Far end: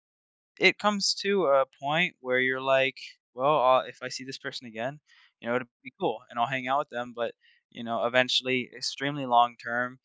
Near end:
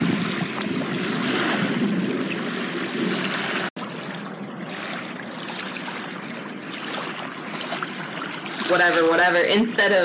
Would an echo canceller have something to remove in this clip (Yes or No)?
No